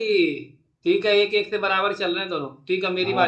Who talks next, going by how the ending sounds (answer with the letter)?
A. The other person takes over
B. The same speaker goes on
A